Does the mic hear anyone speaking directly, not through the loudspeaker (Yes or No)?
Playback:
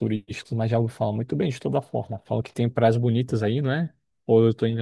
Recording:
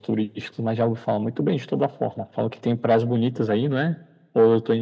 No